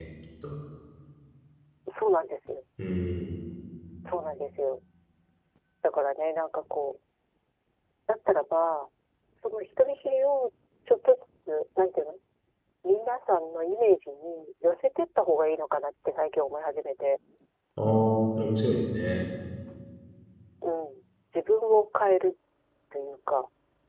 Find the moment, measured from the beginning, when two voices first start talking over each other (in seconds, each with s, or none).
none